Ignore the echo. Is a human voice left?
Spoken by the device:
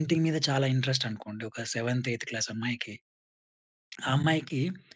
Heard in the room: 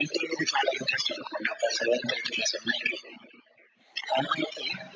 No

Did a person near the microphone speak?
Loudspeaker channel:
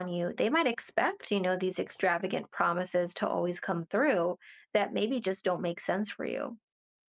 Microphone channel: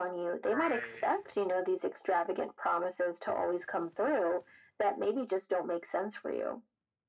Yes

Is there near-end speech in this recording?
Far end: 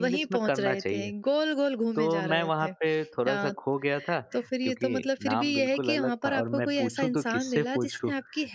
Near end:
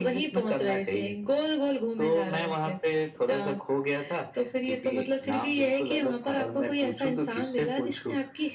No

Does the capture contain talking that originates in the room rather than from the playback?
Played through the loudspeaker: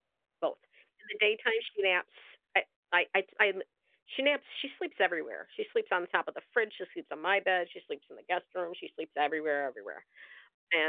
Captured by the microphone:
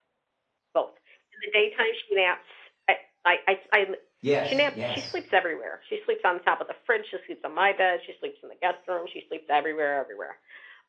Yes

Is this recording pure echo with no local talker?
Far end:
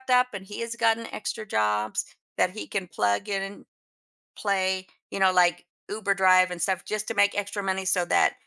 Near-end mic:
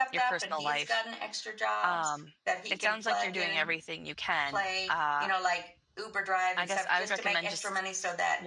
No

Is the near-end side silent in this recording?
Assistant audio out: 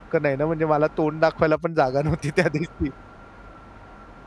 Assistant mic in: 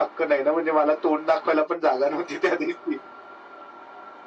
Yes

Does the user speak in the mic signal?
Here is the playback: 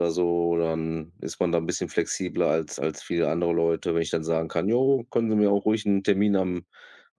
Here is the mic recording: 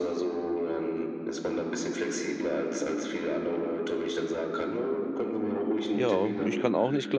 Yes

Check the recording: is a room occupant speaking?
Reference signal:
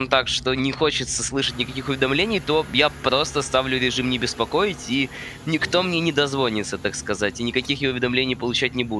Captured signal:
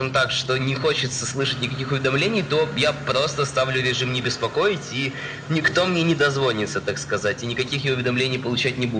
No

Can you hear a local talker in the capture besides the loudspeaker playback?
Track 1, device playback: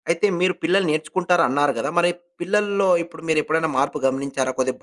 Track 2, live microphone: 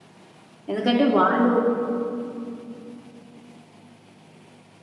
Yes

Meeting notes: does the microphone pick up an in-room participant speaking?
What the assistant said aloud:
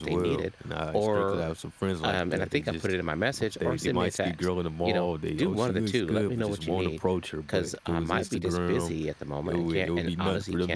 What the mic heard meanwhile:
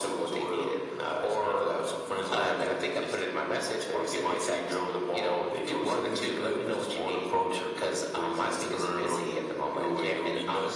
No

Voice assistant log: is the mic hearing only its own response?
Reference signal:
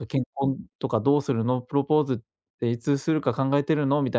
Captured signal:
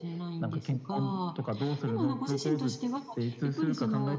No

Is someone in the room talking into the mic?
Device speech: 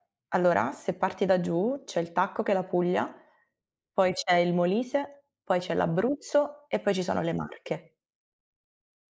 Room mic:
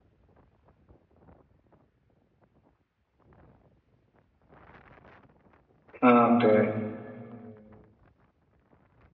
Yes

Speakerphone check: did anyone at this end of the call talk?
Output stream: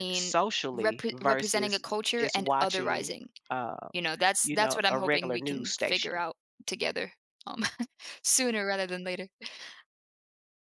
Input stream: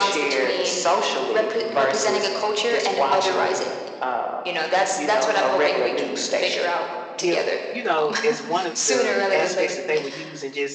Yes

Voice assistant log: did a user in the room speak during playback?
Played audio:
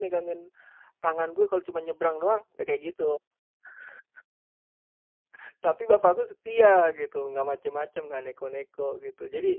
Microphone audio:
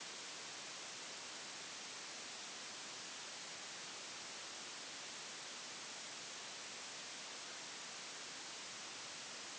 No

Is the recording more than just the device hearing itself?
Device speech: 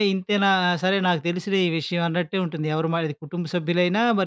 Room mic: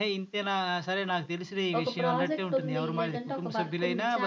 Yes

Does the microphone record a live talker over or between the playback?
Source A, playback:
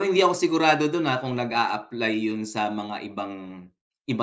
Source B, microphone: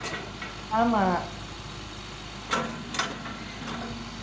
Yes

